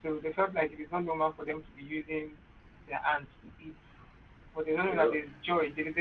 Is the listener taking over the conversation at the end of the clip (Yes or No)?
No